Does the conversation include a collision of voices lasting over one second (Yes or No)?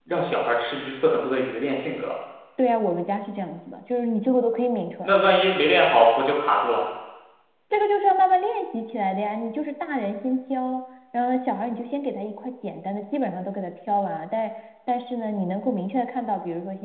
No